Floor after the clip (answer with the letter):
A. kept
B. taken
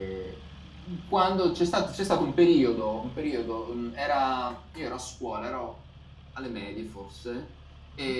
A